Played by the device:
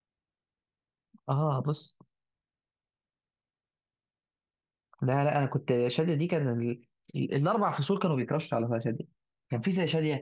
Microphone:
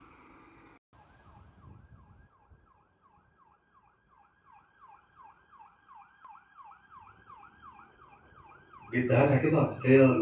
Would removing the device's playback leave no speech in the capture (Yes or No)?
No